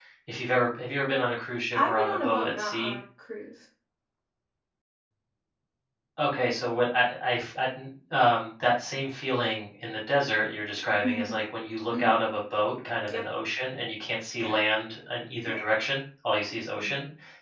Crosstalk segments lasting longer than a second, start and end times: 1.7-3.0

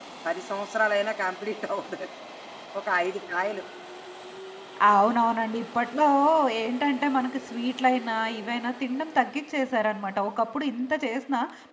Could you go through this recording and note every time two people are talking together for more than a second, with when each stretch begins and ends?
none

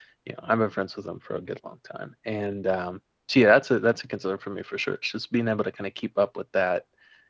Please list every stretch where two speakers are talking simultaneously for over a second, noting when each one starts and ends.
none

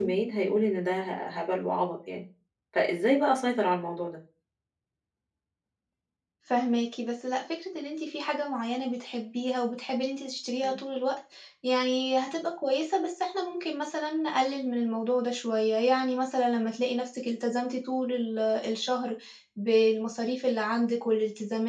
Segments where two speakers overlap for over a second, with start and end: none

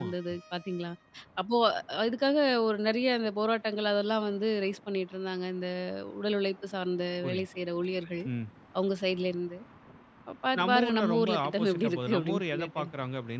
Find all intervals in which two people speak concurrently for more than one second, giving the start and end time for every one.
10.6-12.8

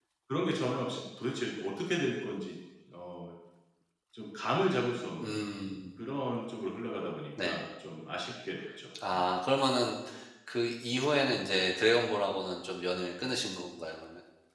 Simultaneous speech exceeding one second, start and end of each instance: none

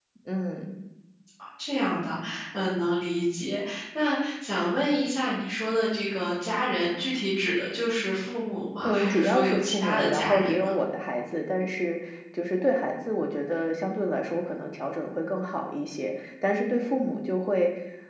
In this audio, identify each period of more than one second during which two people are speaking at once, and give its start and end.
8.8-10.7

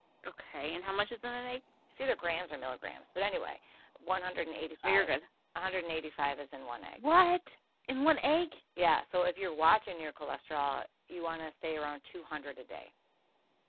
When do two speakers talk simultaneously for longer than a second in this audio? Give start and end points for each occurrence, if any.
none

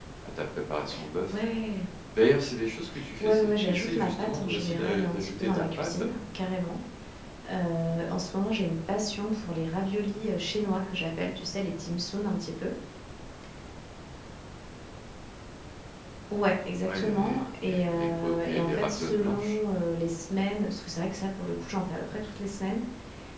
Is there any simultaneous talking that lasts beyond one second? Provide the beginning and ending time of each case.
3.2-6.0, 16.8-19.6

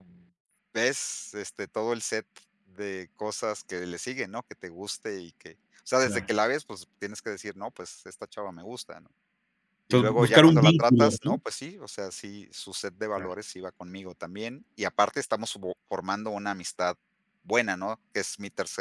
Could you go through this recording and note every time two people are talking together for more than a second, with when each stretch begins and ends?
9.9-11.4

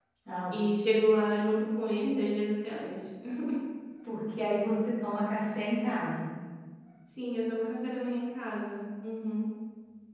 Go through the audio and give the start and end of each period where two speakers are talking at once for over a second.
none

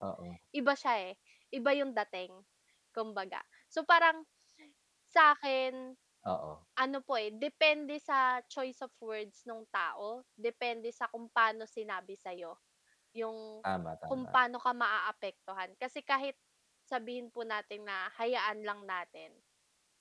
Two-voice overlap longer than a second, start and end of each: none

